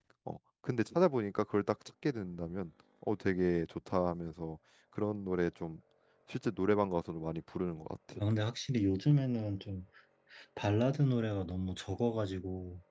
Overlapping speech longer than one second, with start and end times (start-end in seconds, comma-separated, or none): none